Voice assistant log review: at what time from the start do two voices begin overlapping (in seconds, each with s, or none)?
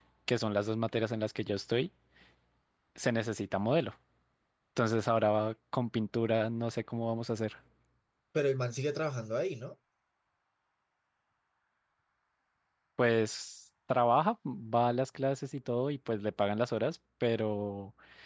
none